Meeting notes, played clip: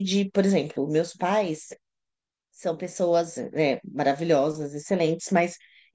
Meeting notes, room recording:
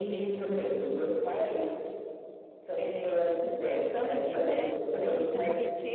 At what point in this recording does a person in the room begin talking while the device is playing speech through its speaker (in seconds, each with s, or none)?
2.7 s